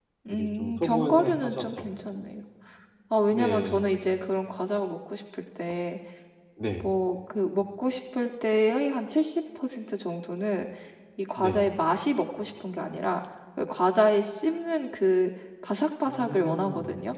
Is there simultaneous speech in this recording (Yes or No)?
Yes